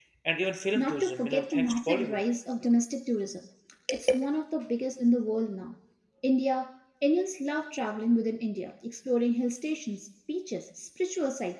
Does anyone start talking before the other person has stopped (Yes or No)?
Yes